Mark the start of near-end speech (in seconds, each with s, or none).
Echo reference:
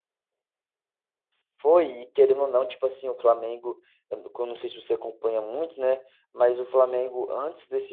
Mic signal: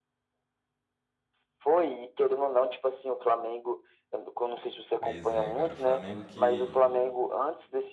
5.0 s